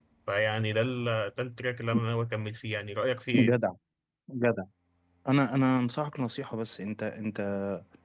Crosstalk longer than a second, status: none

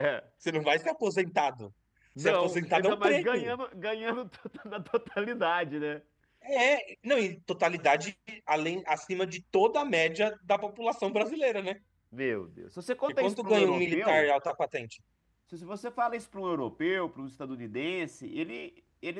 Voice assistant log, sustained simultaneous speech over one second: present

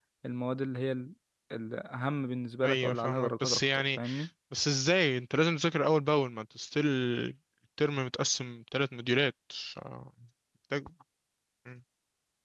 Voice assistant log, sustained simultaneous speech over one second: present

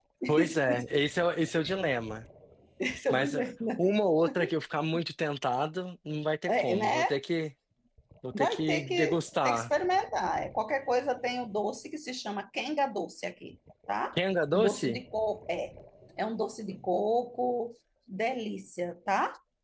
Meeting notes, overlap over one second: present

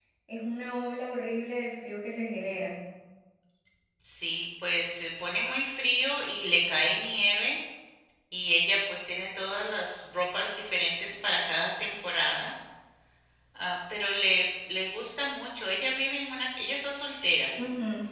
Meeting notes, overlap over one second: none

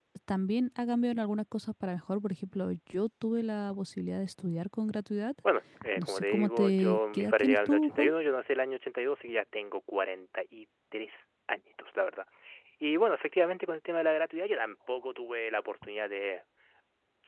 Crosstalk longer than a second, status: present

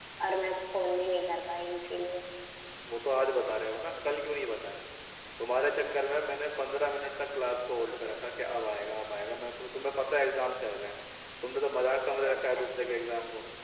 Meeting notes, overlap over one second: none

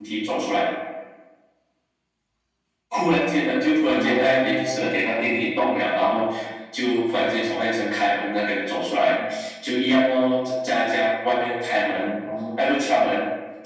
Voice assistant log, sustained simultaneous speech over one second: present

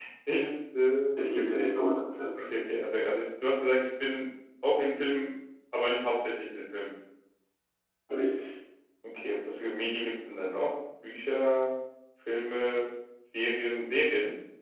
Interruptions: none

